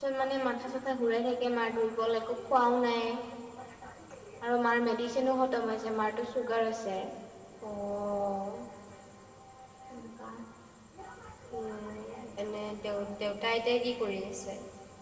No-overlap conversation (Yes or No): Yes